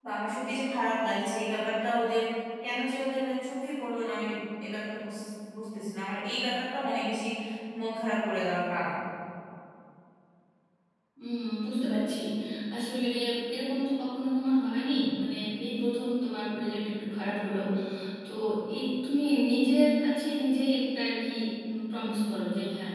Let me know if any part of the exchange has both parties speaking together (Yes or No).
No